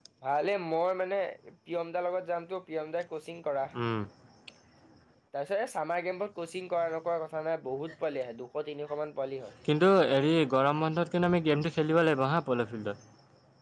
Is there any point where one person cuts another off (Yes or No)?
No